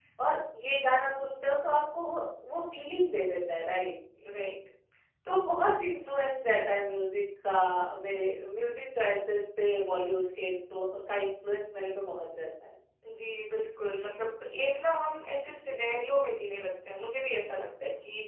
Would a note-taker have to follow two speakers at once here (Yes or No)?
No